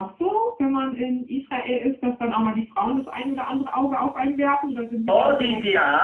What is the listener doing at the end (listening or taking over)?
taking over